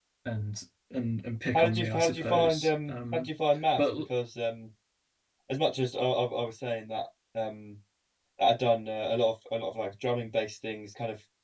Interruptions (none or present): present